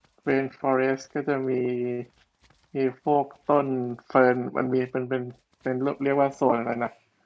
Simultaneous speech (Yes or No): No